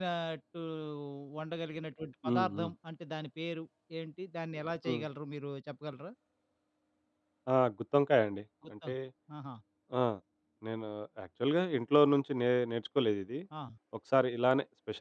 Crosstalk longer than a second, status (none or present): none